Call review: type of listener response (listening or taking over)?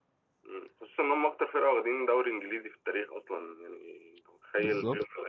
listening